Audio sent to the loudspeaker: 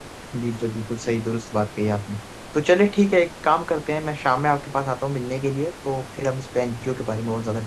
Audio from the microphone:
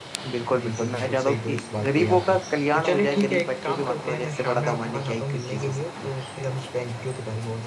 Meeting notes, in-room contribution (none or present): present